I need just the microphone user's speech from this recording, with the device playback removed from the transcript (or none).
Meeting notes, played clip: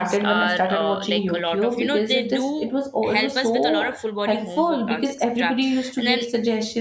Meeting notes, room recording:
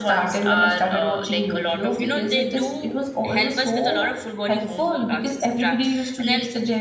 none